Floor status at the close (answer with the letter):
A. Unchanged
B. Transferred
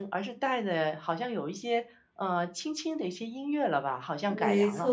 B